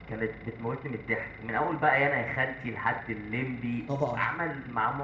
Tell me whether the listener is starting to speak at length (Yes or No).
No